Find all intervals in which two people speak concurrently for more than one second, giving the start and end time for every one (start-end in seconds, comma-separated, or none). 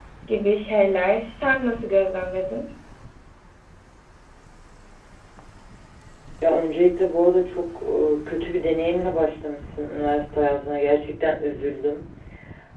none